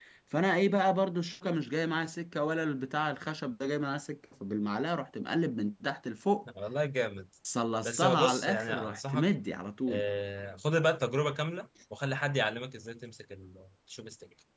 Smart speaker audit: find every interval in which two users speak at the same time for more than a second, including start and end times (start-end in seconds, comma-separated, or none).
7.8-9.3